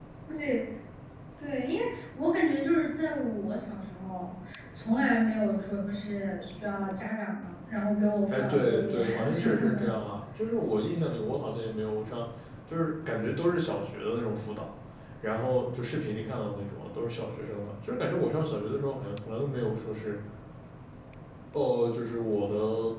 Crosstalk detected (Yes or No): Yes